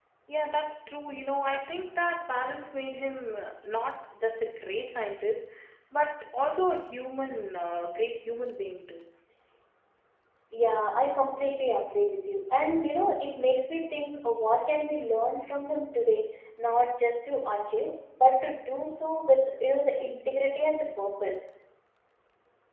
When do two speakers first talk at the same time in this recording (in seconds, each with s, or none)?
none